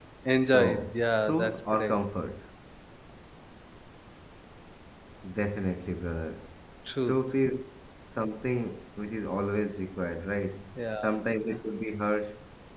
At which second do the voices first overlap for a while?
0.5 s

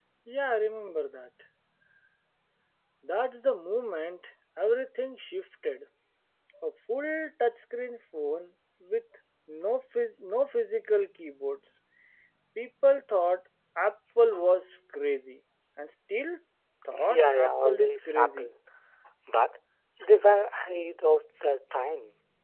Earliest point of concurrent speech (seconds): 17.1 s

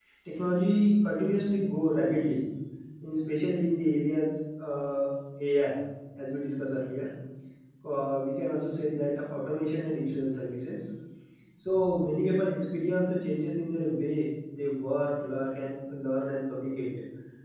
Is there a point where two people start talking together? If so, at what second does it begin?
none

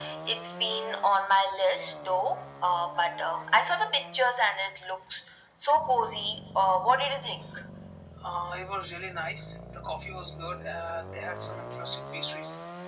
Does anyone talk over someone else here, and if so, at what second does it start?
none

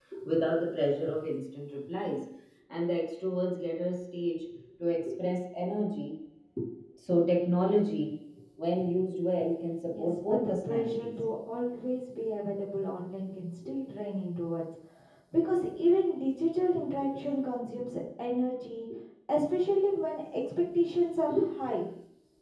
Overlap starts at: 9.9 s

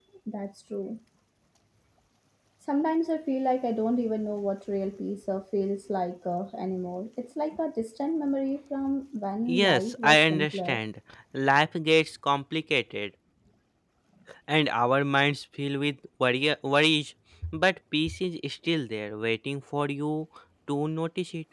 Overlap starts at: 9.5 s

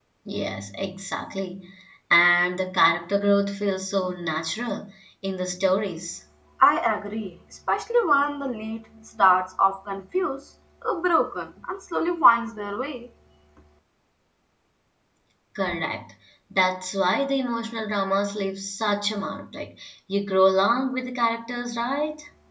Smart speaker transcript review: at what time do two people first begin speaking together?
none

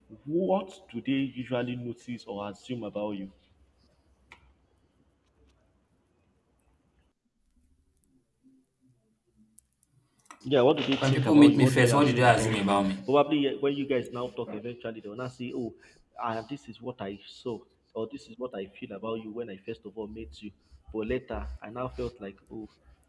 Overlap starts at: 11.0 s

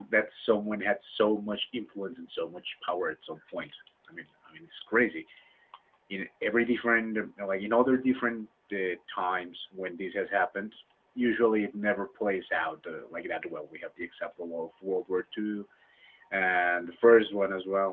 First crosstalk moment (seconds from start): none

